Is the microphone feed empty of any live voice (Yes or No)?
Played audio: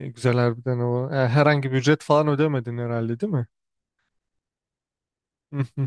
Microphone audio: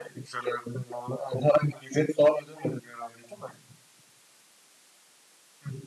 Yes